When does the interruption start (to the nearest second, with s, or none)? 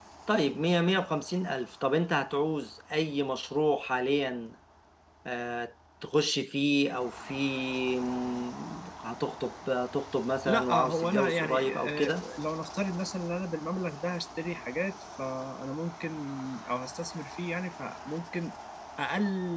10 s